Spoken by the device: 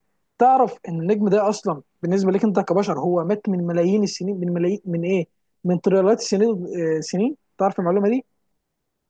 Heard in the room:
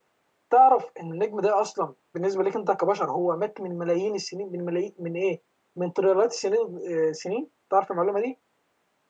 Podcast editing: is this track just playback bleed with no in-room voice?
Yes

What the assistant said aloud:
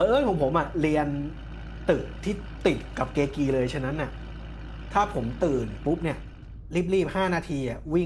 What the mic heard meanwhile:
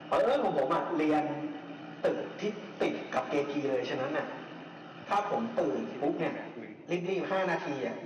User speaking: Yes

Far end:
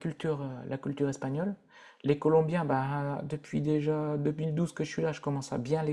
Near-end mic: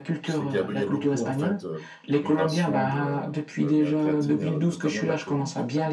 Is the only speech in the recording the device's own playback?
No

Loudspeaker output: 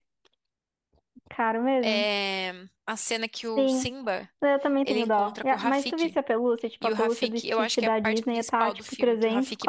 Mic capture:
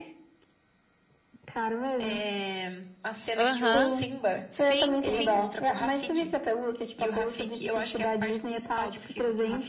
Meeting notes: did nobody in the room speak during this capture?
No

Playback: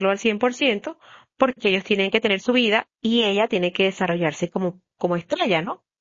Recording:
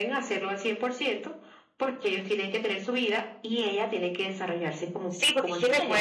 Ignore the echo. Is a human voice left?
Yes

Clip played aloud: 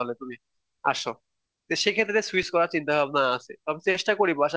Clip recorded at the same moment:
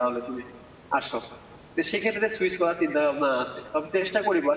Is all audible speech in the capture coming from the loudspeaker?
Yes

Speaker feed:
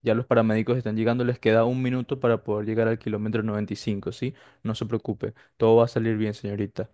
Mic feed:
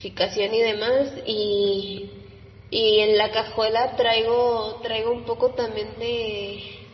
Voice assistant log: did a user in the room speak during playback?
Yes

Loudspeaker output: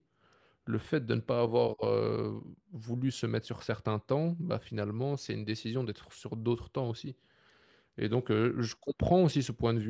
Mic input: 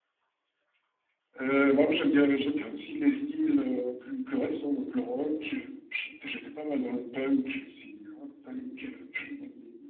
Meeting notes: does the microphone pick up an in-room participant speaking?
Yes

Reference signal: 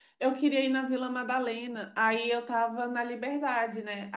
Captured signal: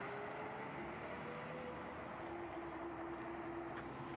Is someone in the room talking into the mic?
No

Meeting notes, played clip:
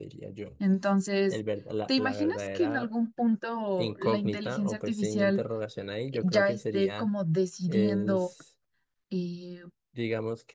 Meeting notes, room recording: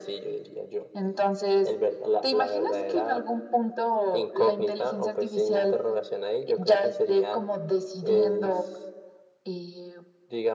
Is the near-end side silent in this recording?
Yes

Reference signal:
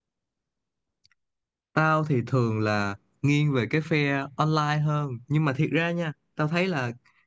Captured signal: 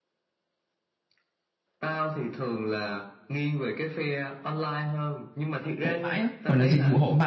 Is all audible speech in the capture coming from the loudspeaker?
No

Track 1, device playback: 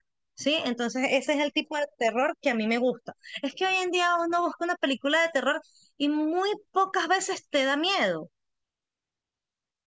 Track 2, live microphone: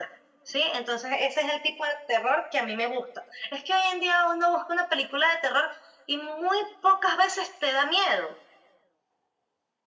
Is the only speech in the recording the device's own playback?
Yes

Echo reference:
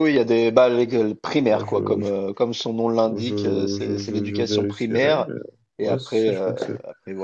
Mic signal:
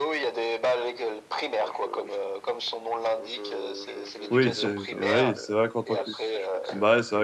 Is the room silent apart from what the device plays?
No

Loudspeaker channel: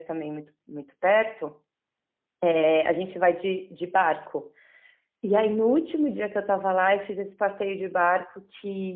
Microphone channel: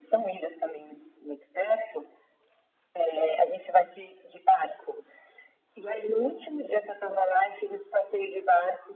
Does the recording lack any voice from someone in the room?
Yes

